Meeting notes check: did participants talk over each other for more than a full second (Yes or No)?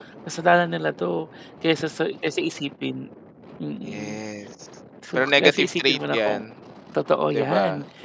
Yes